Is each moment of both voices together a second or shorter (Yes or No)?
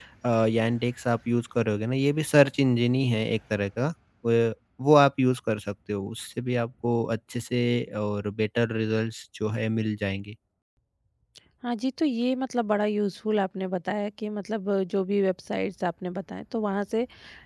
Yes